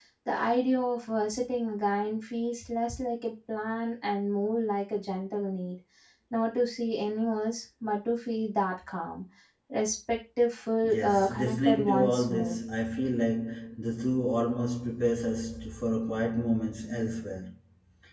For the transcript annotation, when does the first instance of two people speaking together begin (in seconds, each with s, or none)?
10.8 s